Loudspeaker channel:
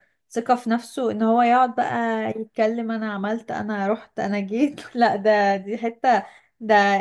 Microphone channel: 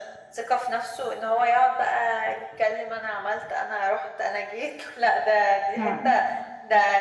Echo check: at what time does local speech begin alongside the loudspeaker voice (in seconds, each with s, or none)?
5.7 s